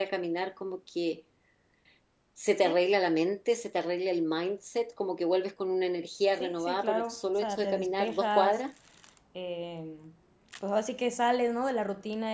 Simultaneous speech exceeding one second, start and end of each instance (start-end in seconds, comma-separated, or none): 6.4-8.6